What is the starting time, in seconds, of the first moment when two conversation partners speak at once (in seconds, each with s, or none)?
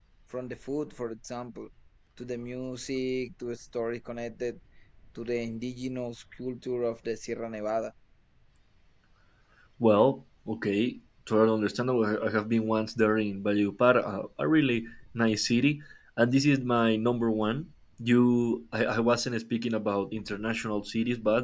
none